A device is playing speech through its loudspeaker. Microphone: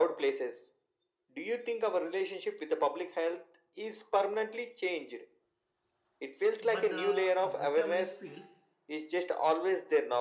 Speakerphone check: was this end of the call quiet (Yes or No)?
No